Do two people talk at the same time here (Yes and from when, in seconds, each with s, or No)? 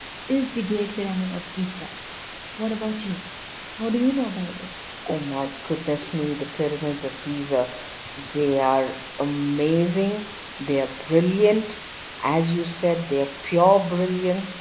No